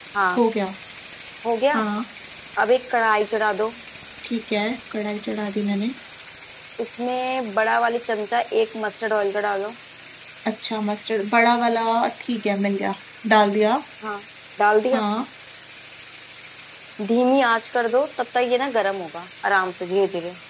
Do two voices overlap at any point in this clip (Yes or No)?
No